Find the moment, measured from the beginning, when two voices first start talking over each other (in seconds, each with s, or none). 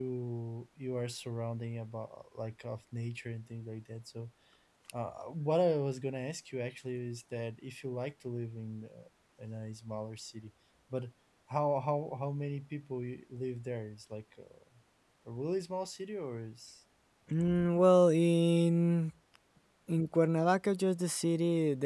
none